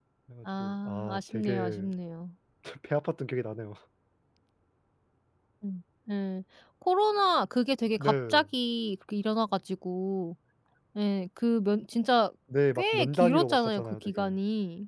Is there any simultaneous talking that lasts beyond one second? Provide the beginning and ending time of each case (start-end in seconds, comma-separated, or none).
0.6-1.9, 12.8-14.2